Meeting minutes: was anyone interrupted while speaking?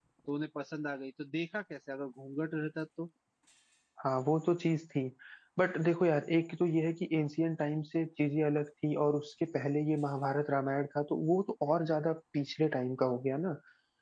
No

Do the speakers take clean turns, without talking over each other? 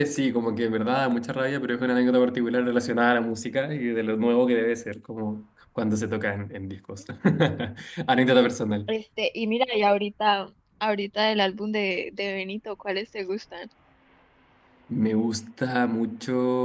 Yes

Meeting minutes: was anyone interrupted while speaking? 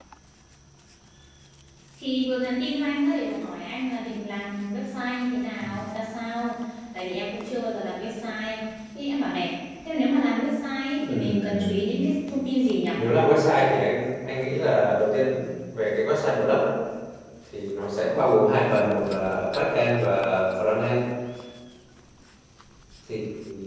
Yes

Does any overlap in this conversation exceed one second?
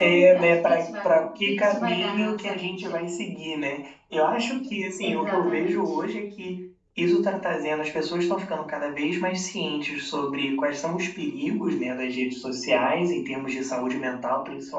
Yes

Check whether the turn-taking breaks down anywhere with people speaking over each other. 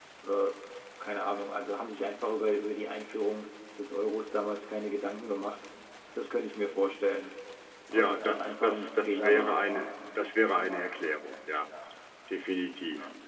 Yes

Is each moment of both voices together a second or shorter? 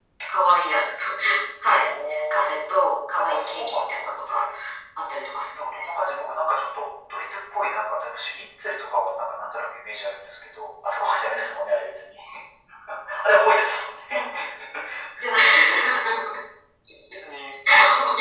No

